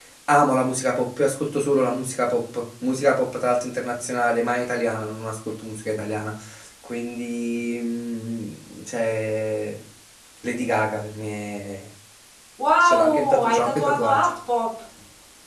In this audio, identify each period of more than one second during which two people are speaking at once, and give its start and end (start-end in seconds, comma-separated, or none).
12.8-14.2